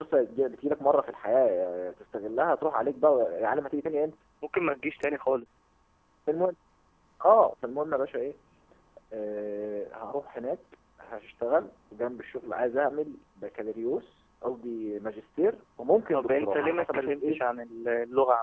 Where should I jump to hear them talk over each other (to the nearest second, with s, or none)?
16 s